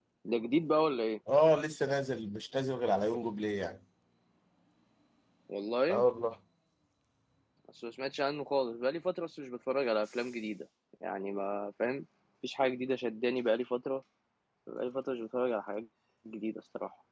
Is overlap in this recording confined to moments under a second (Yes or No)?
Yes